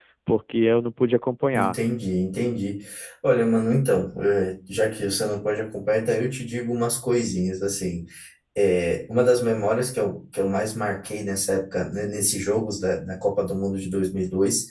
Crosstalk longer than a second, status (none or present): none